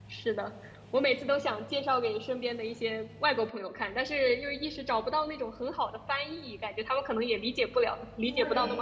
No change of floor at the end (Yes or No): No